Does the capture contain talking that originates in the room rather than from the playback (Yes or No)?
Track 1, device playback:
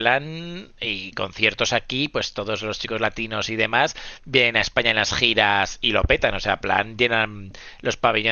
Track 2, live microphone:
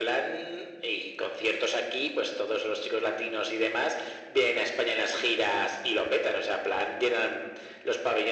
No